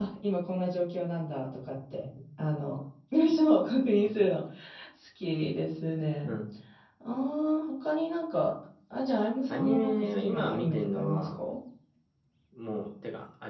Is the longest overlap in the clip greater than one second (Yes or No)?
Yes